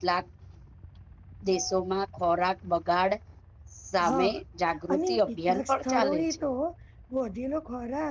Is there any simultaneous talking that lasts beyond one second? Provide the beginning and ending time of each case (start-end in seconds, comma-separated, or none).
5.0-6.2